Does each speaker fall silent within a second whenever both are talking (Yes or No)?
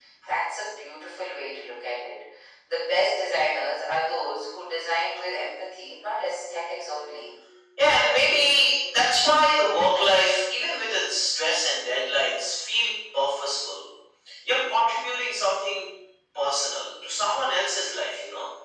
Yes